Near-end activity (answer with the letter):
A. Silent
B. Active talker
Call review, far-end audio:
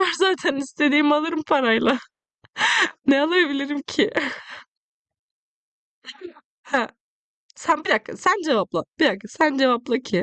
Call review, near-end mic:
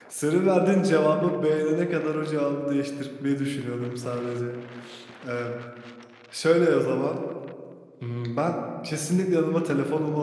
B